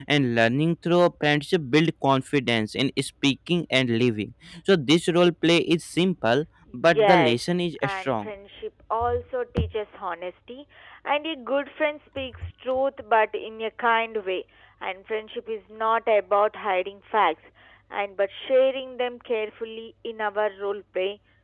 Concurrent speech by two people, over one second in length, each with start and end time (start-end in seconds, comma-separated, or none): 6.7-8.3